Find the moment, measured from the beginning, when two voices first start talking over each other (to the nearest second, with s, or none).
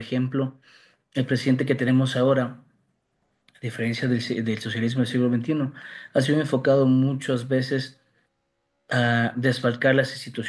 none